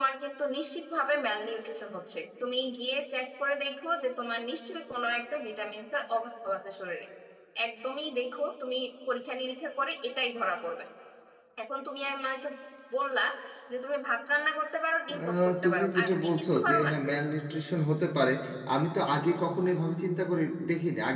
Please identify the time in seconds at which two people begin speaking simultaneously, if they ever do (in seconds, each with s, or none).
15.1 s